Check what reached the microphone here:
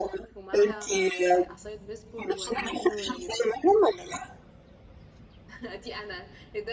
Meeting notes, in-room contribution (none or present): present